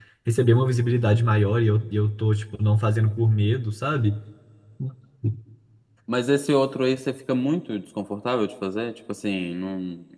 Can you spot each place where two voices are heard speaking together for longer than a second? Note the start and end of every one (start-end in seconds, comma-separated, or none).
none